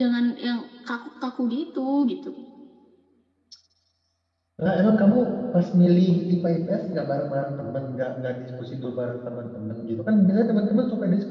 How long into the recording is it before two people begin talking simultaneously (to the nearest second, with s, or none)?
none